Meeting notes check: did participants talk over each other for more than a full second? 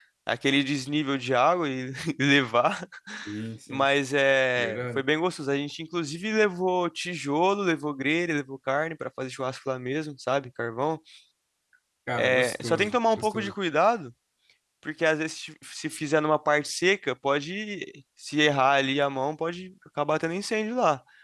Yes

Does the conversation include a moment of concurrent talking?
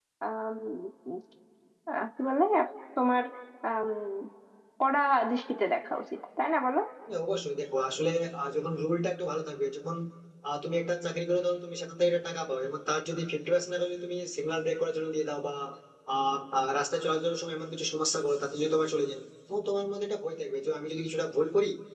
No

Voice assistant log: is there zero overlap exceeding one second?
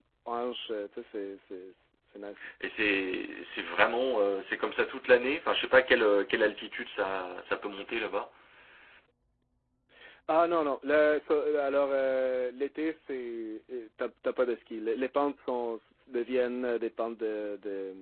Yes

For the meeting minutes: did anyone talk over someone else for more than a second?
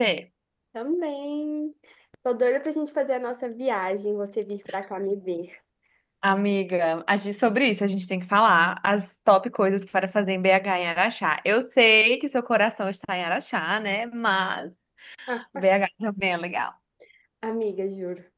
No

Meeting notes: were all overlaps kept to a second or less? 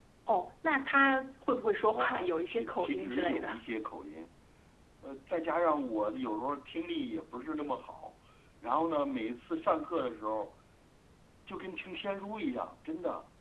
No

